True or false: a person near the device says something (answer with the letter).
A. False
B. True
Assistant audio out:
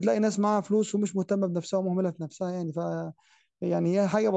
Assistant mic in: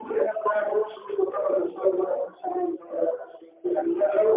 A